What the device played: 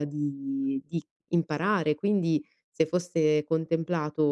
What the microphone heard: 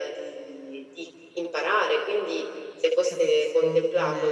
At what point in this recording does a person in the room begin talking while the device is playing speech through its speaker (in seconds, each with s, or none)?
3.1 s